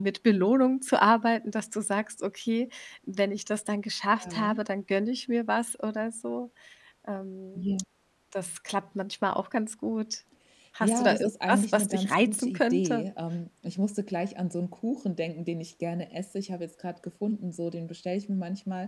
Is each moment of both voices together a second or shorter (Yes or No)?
No